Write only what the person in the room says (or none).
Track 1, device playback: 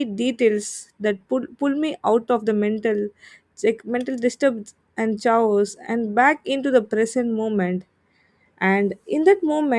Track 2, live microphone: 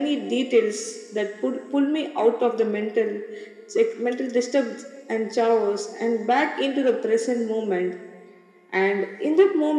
none